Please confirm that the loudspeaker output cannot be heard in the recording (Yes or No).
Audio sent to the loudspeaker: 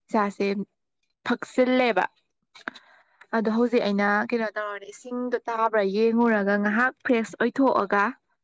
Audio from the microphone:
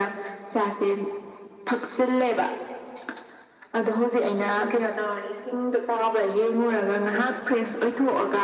No